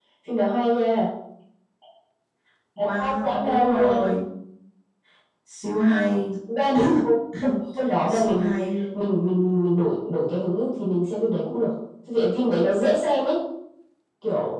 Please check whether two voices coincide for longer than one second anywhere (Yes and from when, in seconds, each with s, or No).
Yes, from 2.8 s